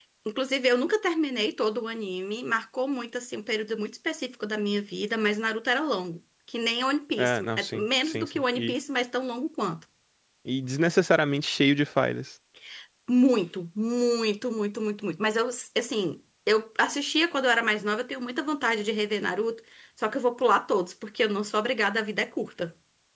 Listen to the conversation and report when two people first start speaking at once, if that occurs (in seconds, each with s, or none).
7.2 s